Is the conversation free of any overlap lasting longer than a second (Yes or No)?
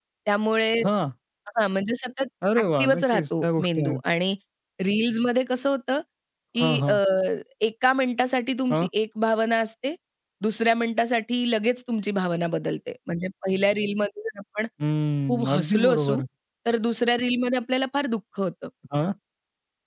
No